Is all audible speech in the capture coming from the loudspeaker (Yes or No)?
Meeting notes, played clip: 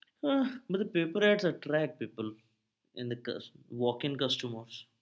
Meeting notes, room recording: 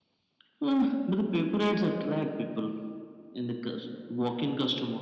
Yes